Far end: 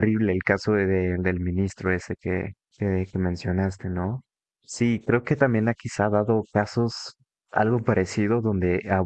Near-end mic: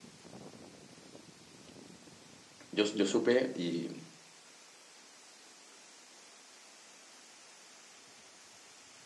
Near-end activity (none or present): present